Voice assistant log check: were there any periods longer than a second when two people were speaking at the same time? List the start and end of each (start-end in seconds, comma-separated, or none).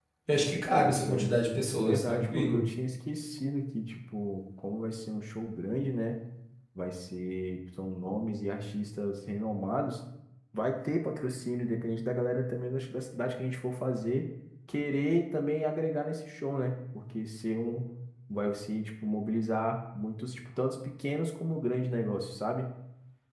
0.8-2.6